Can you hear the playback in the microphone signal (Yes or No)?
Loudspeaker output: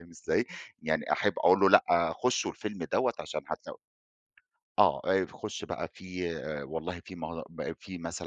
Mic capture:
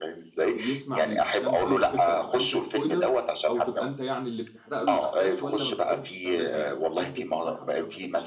Yes